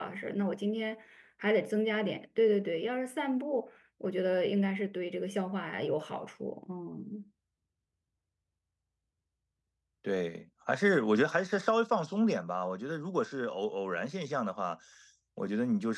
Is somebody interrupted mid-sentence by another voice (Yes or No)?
No